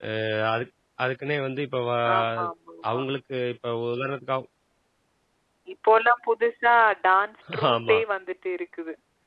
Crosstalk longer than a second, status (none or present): none